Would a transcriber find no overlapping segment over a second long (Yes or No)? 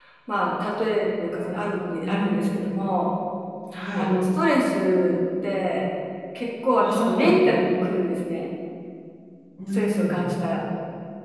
Yes